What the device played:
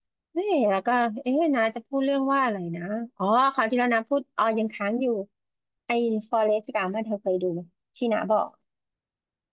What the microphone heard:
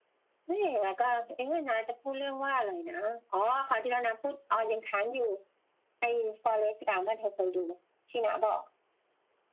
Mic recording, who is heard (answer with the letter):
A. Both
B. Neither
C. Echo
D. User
C